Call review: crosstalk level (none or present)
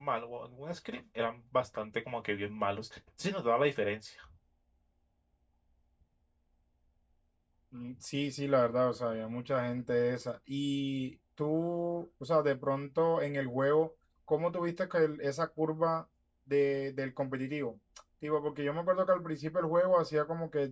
none